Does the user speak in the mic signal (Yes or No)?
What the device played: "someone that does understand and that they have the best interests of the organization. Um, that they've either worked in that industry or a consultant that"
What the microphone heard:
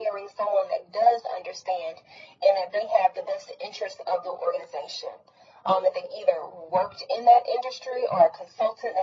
No